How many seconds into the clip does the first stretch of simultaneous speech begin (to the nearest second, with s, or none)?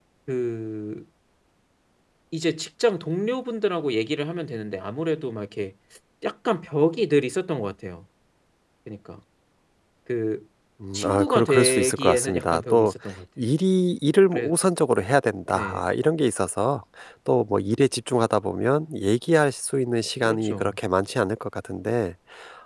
11 s